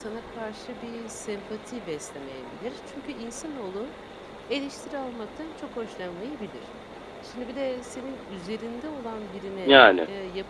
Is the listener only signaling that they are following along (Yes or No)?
Yes